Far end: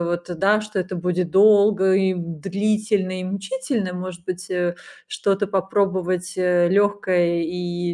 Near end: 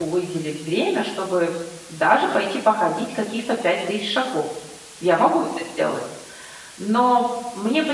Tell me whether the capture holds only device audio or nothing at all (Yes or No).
No